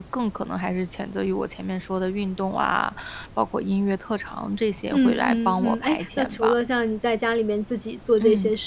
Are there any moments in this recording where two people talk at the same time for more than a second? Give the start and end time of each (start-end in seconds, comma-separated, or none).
4.9-6.5